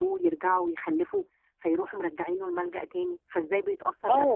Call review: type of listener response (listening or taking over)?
taking over